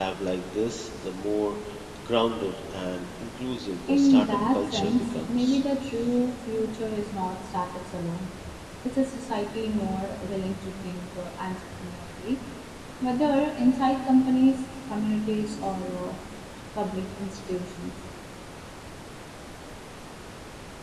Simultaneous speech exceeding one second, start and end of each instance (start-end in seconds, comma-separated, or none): 3.9-5.6